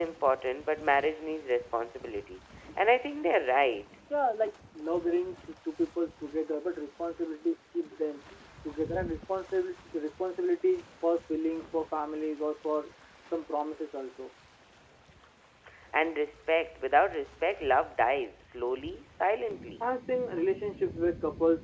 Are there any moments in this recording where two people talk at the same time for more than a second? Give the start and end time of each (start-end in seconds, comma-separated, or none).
none